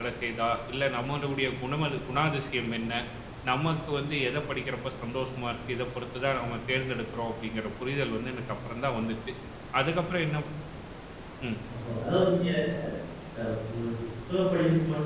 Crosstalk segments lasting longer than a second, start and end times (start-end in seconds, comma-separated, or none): none